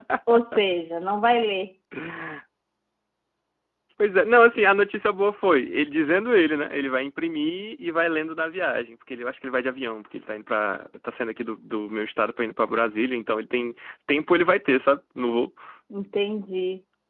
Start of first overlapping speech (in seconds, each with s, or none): none